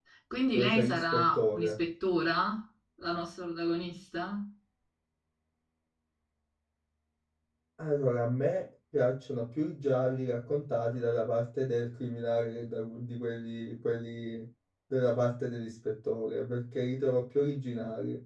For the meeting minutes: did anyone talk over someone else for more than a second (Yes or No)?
Yes